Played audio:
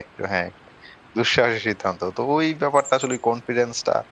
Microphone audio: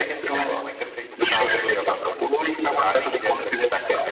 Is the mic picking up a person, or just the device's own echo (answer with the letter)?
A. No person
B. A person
B